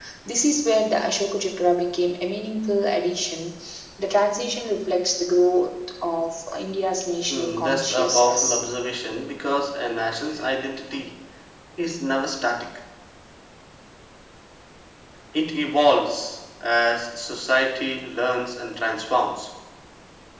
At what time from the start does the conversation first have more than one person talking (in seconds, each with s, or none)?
7.3 s